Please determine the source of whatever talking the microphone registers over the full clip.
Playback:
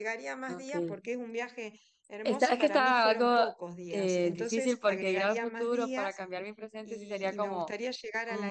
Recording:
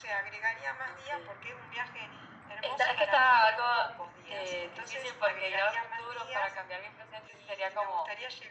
echo only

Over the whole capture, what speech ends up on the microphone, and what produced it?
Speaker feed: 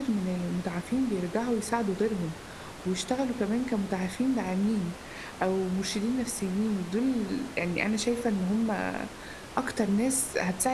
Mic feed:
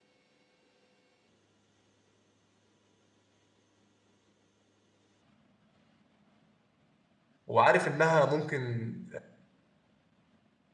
user only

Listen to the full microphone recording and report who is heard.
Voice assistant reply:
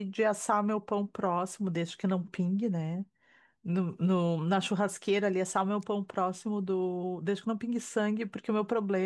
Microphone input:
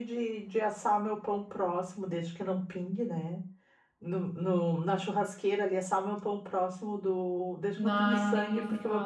both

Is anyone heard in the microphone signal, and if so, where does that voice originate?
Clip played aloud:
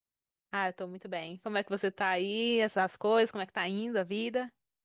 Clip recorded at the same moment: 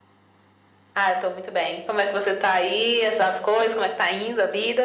echo only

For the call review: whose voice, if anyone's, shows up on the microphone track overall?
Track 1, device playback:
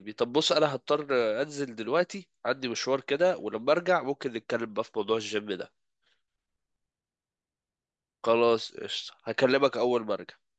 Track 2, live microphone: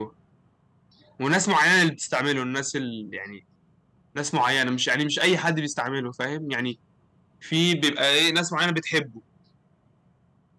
user only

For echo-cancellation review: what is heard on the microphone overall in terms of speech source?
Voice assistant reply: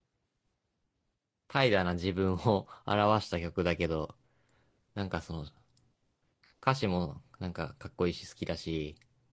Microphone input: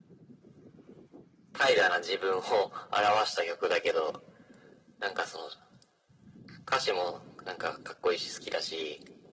echo only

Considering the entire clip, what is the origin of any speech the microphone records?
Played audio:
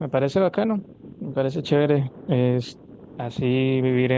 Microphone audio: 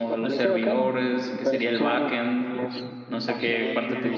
both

